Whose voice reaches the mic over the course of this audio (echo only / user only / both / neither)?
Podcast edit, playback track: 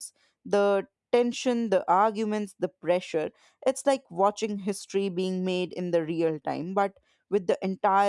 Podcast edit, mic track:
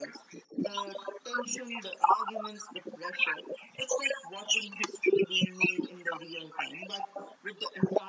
echo only